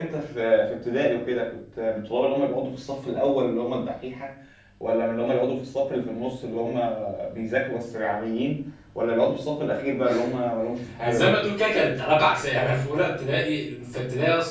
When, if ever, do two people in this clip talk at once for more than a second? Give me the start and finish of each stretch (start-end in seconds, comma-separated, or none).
none